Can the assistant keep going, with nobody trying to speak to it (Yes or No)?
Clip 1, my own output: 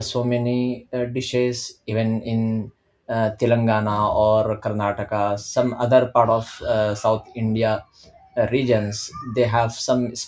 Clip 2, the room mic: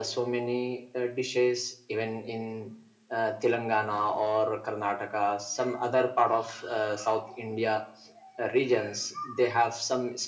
Yes